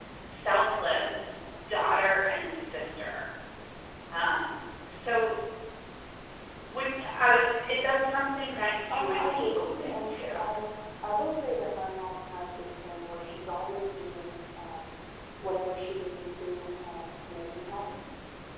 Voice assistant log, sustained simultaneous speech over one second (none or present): present